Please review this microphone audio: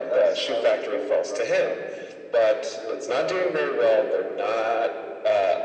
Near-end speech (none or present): none